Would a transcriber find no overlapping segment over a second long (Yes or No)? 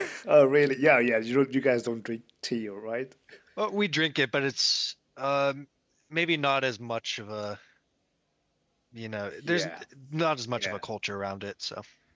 Yes